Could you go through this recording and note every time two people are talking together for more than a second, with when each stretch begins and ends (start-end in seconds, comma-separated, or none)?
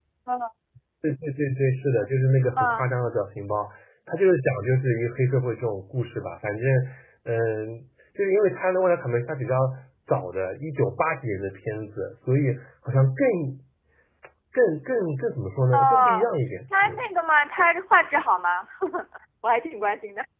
none